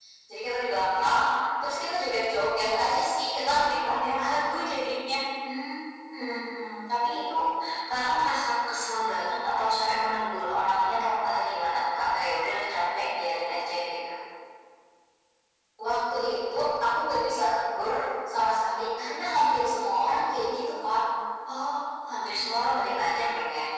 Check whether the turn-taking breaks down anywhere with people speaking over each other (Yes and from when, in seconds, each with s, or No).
No